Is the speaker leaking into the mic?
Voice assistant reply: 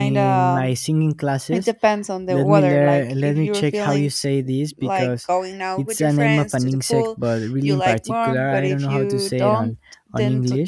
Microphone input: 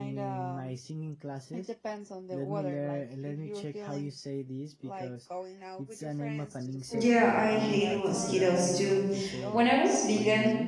Yes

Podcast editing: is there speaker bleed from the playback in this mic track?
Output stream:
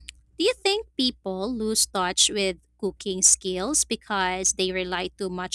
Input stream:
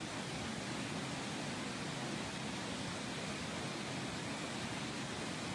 No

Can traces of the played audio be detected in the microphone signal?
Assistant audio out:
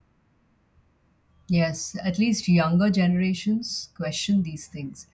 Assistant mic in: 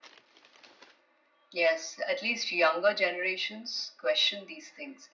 Yes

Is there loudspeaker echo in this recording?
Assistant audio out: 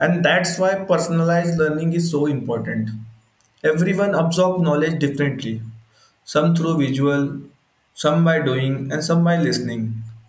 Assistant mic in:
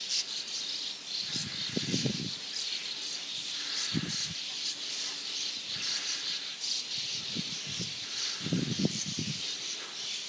No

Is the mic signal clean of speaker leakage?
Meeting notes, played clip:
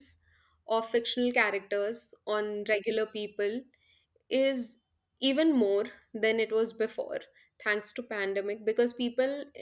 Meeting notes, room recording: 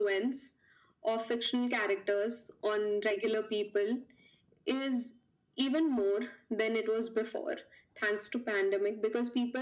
No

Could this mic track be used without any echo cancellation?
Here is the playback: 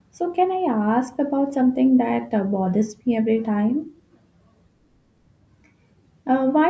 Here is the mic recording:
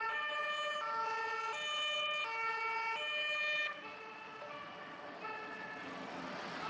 Yes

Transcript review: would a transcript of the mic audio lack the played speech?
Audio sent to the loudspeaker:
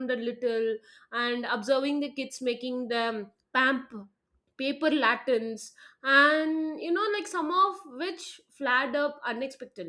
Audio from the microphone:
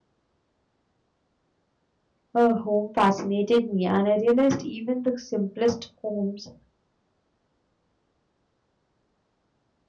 Yes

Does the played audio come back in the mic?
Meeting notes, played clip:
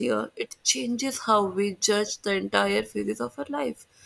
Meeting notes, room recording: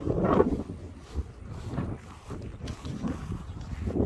No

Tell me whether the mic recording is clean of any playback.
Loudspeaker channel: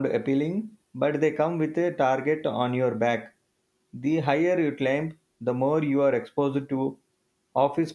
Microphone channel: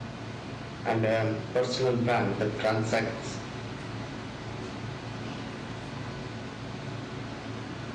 Yes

